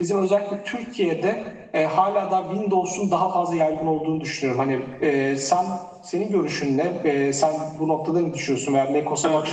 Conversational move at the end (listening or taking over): taking over